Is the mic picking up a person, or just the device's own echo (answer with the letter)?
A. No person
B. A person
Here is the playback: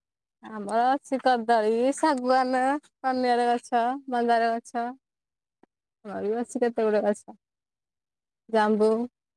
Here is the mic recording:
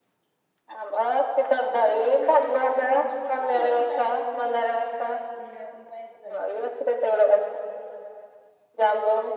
B